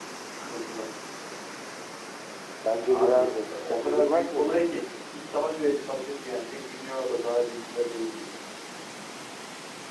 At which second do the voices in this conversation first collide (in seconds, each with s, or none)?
2.9 s